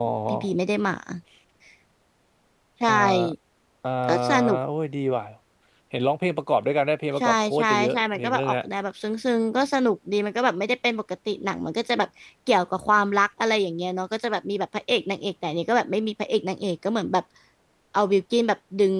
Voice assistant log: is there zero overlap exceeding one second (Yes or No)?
No